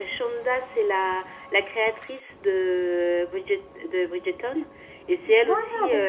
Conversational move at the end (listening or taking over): listening